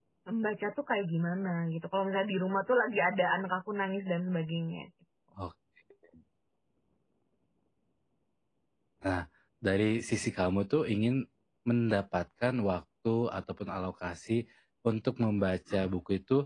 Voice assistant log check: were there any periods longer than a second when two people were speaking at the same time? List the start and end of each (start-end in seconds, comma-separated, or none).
none